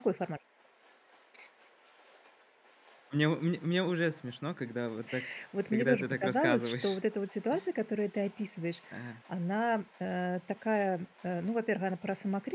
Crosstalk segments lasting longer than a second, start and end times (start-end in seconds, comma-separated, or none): 5.7-7.0